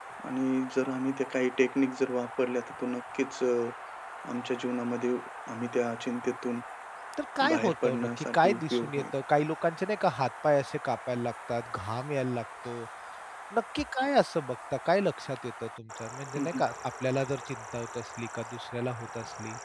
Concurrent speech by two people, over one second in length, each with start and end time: 7.5-9.0

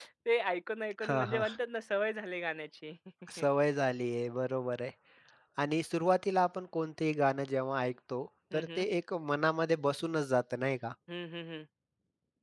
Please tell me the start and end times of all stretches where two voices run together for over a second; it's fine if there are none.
none

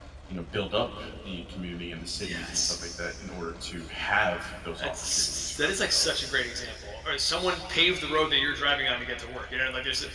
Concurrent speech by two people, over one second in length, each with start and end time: 4.8-6.2

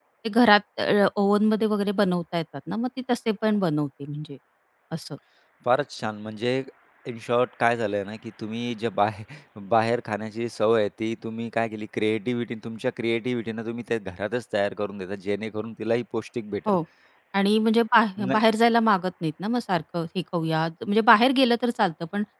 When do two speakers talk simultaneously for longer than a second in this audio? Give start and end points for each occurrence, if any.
none

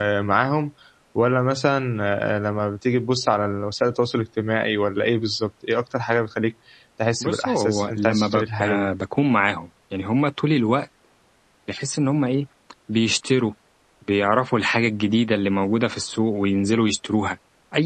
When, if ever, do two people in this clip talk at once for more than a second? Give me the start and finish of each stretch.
7.2-8.9

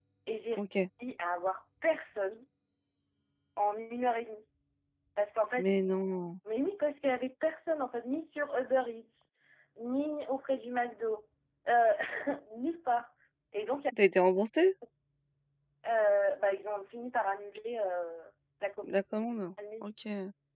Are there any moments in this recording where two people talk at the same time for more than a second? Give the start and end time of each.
none

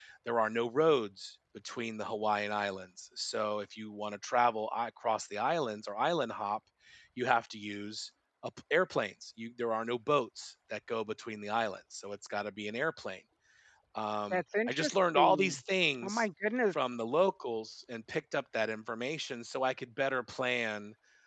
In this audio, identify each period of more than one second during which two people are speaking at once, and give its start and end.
14.3-15.6

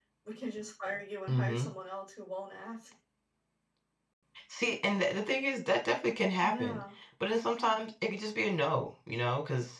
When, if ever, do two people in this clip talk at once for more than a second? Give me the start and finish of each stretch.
none

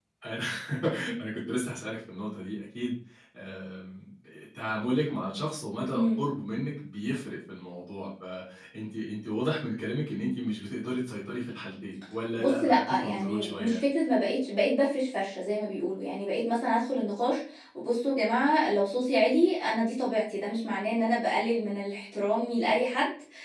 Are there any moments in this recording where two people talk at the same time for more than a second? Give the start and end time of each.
12.4-13.8

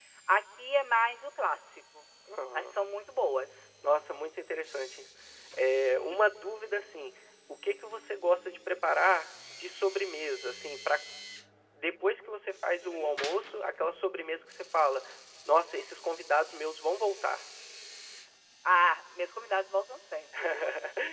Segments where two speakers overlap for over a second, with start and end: none

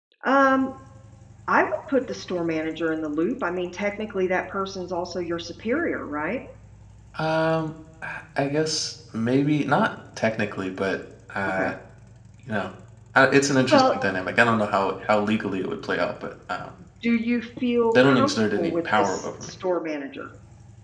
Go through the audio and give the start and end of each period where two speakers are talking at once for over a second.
18.0-19.5

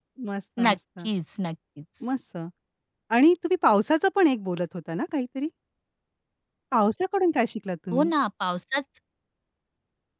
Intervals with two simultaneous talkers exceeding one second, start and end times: none

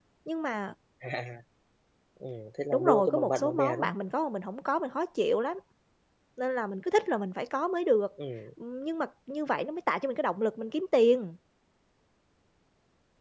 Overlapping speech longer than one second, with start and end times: 2.7-4.0

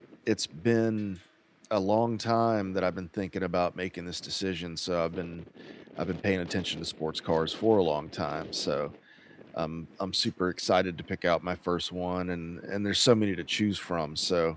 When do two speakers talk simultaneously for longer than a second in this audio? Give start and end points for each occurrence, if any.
none

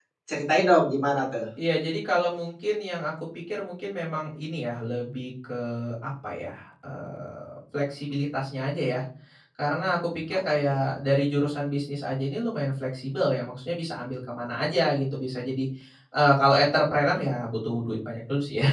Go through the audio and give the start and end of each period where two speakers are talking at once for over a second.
none

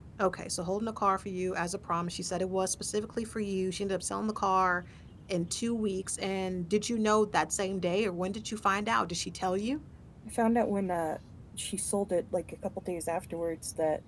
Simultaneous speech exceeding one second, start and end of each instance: none

